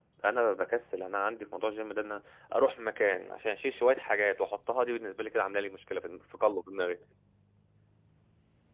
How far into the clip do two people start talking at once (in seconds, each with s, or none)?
none